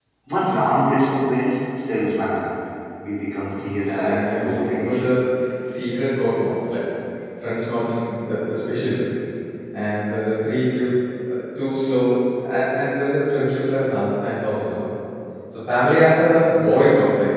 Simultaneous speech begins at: 3.6 s

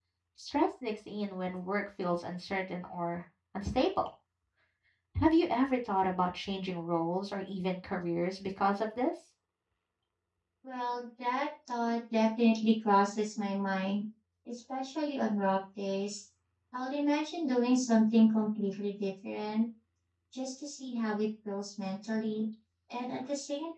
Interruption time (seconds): none

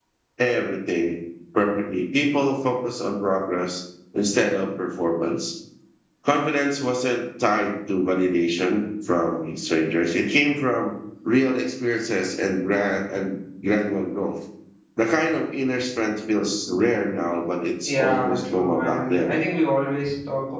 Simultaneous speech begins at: 17.8 s

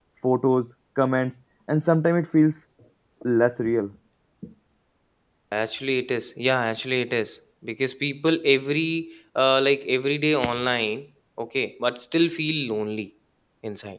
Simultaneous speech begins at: none

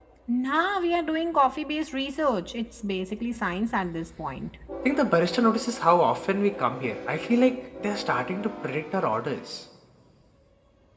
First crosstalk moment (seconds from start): none

